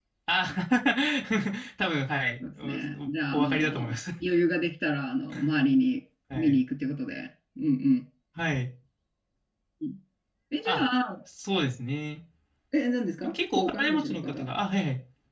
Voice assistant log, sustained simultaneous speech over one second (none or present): present